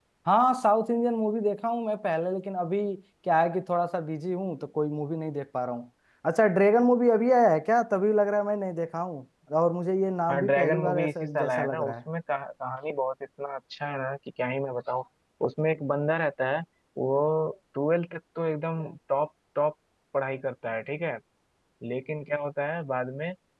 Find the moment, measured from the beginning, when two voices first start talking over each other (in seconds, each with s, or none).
10.3 s